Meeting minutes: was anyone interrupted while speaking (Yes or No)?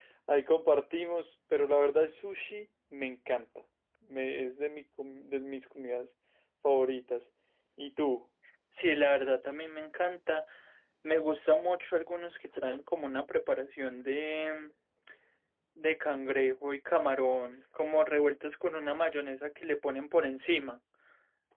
No